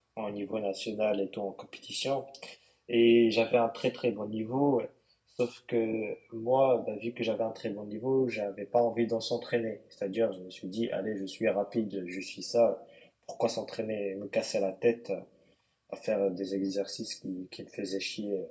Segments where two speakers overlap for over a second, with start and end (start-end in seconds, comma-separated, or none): none